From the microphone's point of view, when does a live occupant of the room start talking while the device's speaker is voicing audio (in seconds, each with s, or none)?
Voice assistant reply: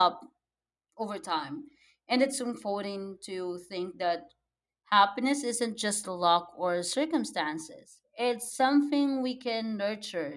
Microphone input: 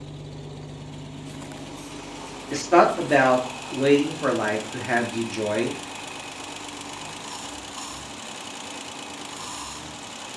2.5 s